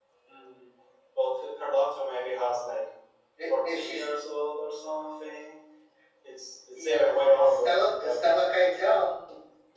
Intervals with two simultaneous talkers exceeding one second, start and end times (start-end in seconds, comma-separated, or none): 6.8-8.2